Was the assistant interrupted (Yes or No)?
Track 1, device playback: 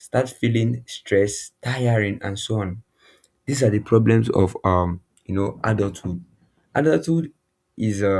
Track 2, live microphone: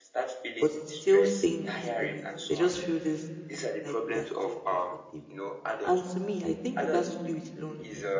Yes